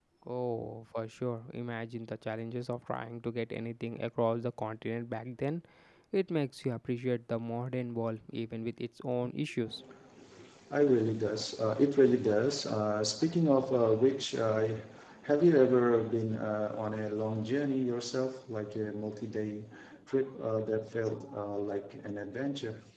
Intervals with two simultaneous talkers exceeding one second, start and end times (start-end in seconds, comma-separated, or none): none